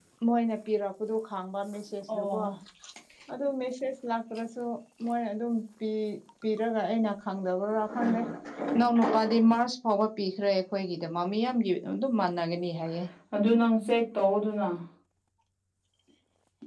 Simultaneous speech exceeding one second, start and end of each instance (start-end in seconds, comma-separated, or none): none